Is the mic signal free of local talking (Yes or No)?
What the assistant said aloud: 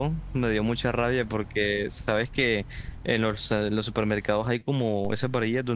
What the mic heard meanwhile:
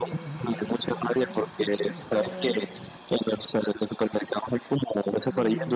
No